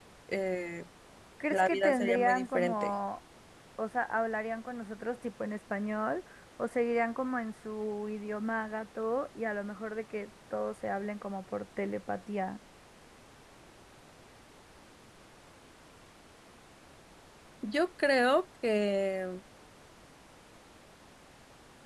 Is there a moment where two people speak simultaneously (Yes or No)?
Yes